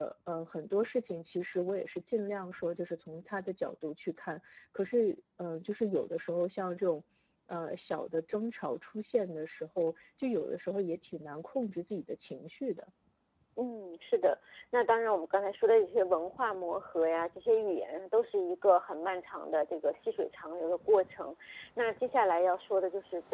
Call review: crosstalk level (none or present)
none